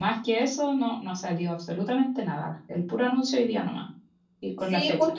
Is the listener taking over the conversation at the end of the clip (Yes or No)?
Yes